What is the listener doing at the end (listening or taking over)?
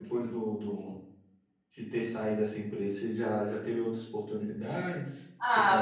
taking over